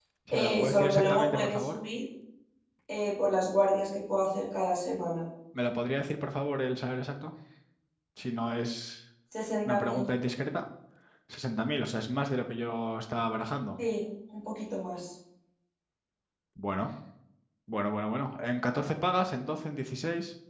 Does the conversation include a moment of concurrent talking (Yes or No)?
Yes